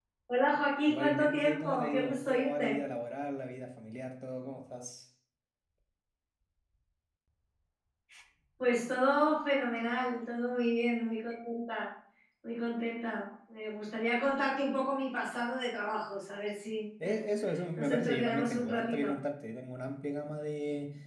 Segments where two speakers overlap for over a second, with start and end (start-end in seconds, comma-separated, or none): 0.9-2.8, 17.8-19.1